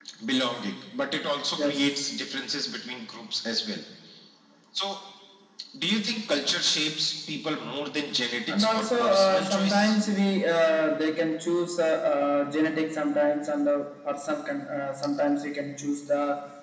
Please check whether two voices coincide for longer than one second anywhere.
Yes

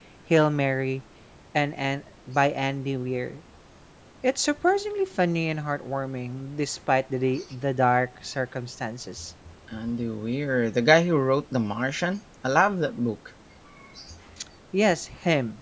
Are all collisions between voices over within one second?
Yes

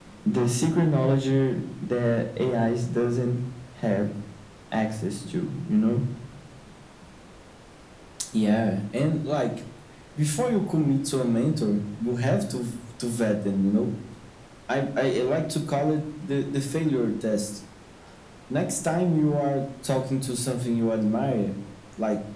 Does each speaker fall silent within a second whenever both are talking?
Yes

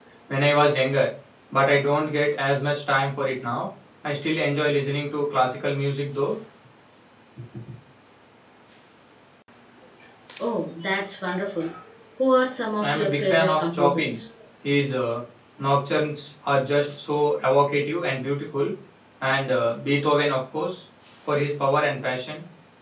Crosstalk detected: Yes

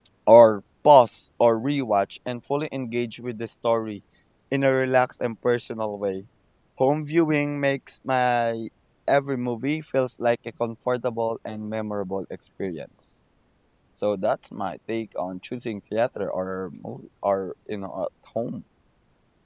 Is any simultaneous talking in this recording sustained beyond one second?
No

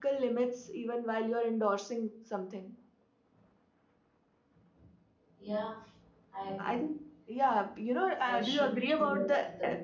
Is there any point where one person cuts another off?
Yes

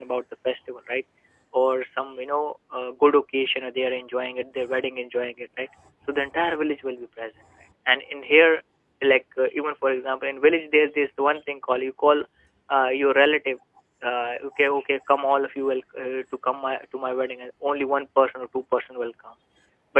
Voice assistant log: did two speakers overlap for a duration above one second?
No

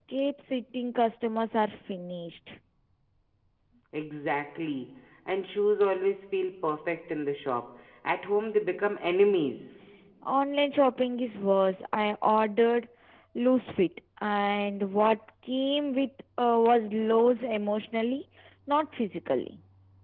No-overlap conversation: Yes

